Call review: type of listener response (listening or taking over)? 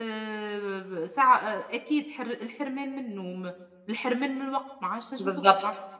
listening